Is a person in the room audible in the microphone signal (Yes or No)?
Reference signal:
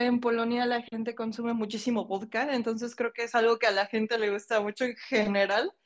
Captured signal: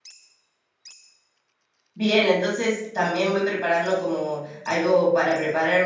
Yes